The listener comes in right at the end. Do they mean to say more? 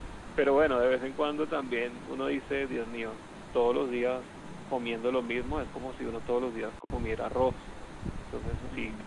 No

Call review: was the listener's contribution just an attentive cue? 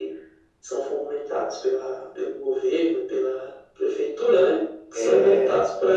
Yes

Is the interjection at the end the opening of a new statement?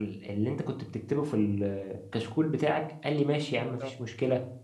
No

